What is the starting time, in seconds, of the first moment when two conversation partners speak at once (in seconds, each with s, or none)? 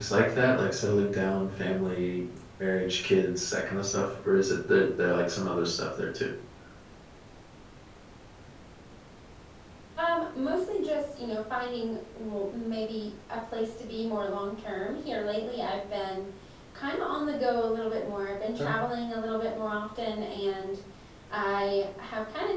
none